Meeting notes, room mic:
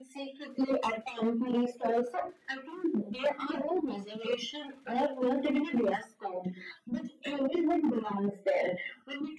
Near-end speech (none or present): none